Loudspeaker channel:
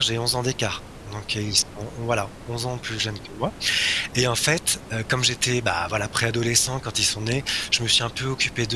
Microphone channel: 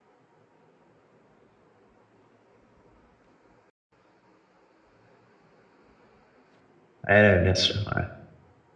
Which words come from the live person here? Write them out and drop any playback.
Ouais, bien sûr! Ouais.

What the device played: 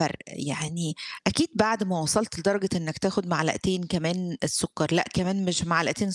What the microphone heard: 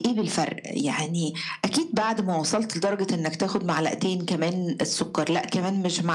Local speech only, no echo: none

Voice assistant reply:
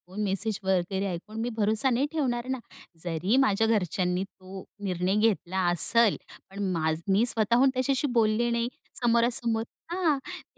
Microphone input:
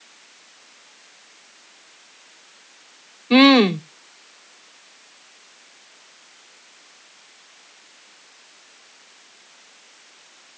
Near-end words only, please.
हं.

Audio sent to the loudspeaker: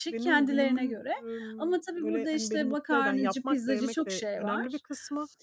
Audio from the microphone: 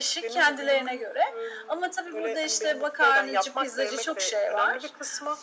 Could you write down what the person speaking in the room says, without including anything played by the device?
none

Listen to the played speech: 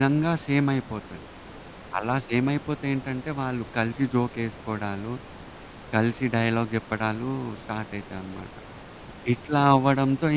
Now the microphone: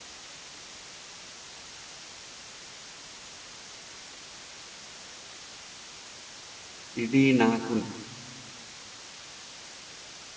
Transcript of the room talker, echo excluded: ఇది నాకు

